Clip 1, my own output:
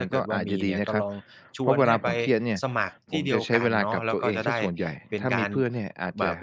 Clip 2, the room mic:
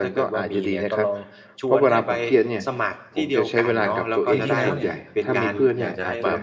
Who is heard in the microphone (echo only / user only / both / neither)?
both